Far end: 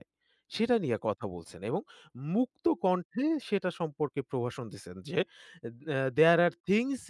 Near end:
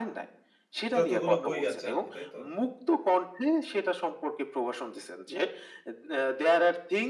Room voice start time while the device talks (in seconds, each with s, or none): 0.9 s